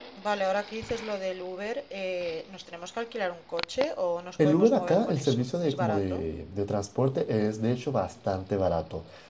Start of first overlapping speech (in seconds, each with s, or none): 4.4 s